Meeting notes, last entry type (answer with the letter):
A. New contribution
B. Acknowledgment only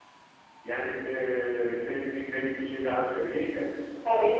B